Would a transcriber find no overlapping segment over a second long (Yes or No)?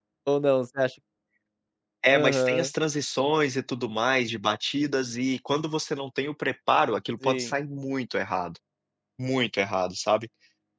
Yes